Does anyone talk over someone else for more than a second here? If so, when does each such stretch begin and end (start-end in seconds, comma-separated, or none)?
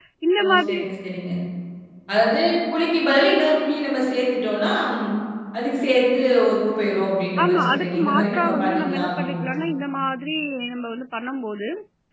7.4-9.8